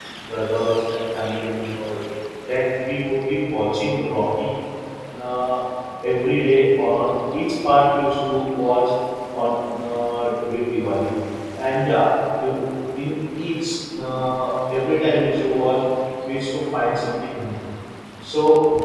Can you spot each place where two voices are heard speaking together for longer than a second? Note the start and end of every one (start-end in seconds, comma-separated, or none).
none